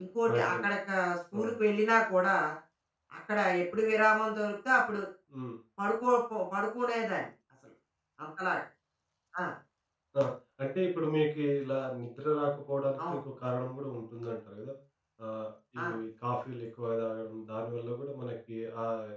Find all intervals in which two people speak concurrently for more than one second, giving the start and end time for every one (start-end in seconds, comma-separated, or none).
none